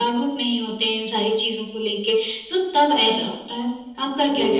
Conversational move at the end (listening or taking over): taking over